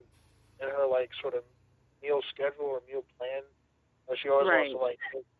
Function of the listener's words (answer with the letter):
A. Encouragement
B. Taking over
A